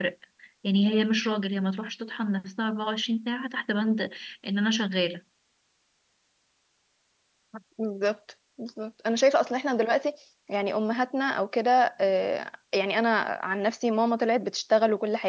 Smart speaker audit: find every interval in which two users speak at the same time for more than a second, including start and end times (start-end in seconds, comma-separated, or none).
none